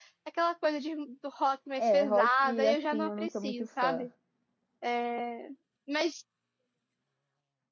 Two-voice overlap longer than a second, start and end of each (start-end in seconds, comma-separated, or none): 1.8-4.1